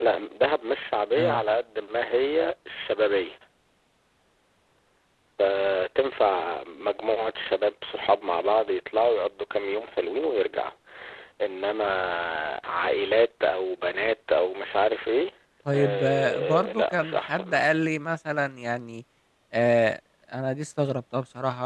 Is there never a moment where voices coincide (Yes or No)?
No